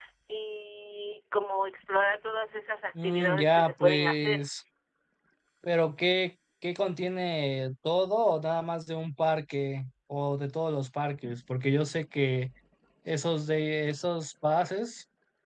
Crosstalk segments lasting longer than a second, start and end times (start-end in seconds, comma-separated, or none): 3.0-4.4